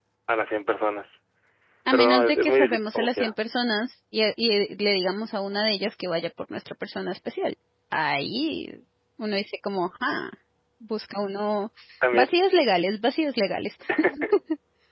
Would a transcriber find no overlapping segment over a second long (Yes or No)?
No